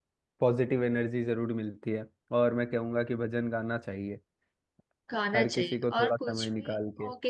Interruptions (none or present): present